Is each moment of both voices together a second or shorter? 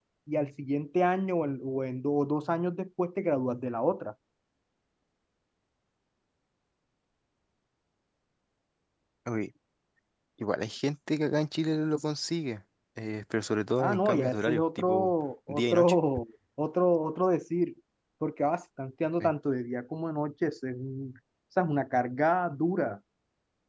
No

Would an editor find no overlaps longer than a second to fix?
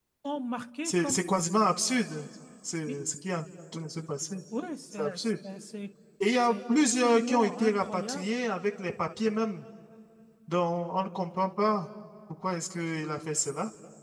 No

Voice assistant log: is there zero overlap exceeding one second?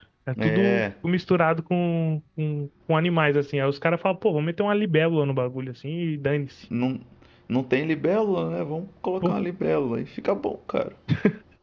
Yes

